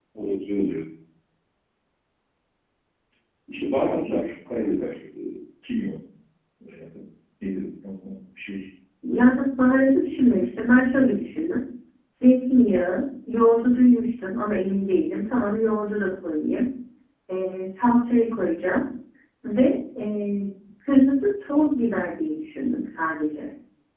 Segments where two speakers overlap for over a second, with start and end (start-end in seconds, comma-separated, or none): none